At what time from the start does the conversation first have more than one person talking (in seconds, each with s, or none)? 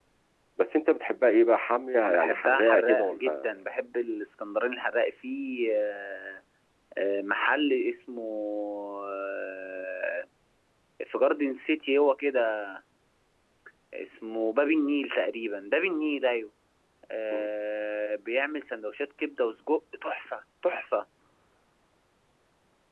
2.0 s